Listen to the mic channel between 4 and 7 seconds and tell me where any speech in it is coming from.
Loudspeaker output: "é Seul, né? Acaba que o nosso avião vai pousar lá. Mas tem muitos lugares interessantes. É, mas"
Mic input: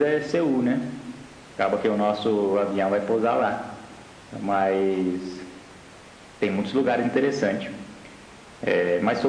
echo only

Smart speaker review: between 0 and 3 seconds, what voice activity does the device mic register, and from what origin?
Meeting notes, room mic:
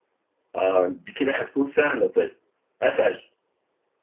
echo only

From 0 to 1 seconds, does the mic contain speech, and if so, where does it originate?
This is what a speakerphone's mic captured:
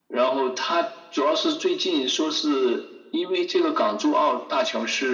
echo only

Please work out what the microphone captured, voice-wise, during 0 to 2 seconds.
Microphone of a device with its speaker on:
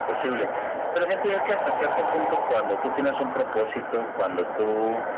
echo only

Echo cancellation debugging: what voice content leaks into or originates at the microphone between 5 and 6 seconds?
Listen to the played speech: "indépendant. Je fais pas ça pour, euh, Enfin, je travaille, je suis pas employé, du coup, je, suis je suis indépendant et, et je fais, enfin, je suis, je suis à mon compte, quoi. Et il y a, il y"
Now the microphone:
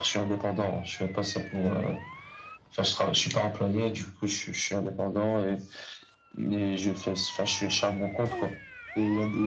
echo only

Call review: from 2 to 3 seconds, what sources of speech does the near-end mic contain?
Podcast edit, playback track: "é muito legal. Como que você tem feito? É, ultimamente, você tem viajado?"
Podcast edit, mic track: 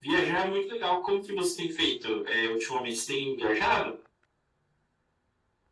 echo only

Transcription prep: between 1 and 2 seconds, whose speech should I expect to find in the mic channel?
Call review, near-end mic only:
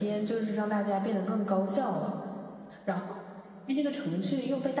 echo only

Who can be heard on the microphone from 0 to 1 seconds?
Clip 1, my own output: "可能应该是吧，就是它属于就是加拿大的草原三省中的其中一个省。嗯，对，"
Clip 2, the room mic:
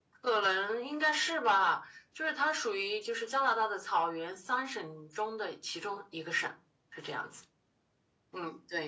echo only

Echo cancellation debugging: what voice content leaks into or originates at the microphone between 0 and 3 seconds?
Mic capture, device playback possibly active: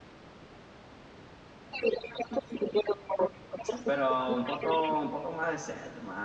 echo only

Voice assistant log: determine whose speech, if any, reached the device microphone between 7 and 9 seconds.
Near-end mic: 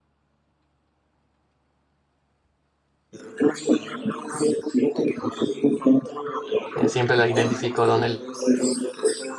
both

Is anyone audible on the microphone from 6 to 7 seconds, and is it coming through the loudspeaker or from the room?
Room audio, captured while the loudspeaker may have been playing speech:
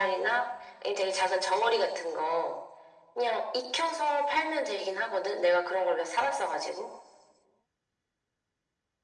echo only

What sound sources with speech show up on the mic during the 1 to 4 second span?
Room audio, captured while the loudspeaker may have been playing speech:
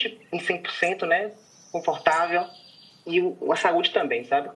echo only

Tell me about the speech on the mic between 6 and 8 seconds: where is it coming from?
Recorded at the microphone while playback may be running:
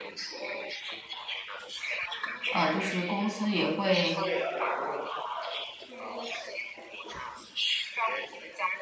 echo only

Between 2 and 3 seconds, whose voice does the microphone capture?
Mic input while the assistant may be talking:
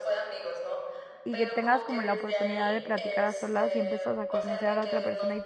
both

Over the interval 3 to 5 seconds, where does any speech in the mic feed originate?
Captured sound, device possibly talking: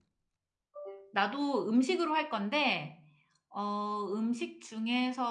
user only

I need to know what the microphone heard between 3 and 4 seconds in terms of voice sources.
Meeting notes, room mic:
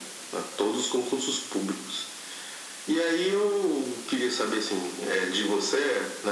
echo only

